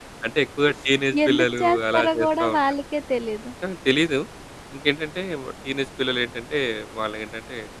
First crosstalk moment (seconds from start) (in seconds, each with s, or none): 1.3 s